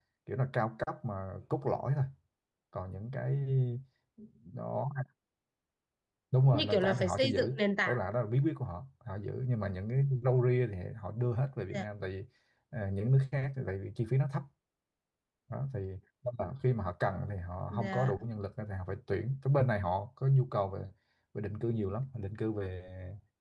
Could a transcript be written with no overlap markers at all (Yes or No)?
No